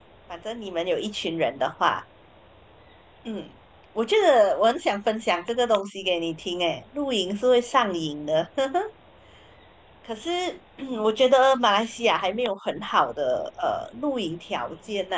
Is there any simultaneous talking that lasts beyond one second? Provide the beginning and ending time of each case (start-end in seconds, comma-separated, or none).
none